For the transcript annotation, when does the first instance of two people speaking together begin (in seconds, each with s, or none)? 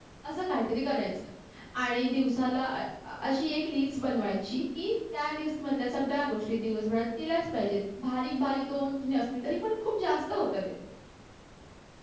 none